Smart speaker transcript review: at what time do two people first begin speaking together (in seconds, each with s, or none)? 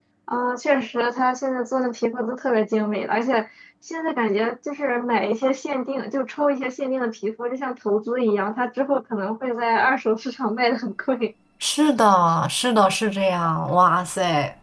none